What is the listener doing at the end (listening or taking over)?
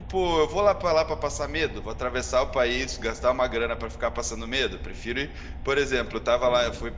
listening